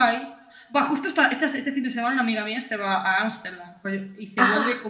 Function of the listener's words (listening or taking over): listening